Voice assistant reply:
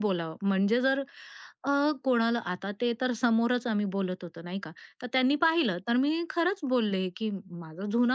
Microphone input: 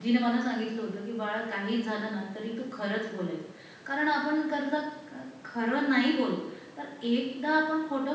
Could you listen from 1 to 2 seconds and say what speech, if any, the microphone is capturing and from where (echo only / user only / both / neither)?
user only